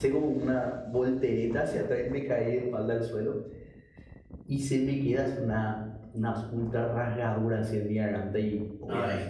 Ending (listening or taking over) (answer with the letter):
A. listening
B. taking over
A